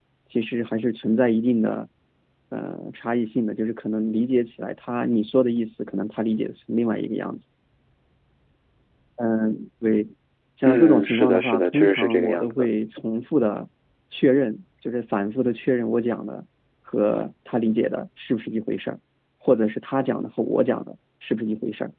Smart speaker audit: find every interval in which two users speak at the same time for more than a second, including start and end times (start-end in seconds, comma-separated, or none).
10.7-12.5